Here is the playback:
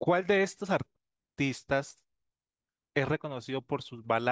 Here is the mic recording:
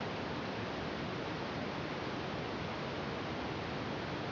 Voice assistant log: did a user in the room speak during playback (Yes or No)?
No